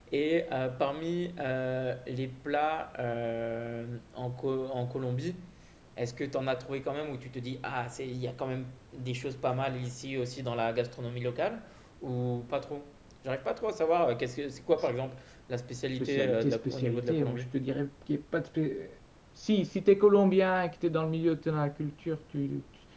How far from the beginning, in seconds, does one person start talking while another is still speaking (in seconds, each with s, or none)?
16.0 s